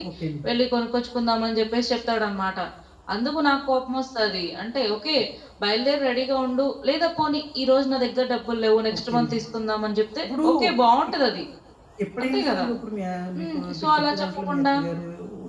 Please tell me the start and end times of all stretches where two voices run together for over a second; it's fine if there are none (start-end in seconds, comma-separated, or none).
13.4-14.6